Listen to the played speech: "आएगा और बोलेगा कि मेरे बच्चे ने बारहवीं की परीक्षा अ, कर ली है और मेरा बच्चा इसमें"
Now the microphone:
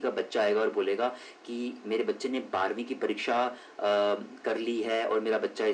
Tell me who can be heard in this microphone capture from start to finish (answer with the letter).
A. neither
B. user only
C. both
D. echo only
D